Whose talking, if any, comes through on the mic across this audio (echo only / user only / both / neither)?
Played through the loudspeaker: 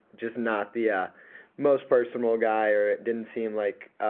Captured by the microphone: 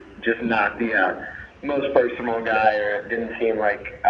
echo only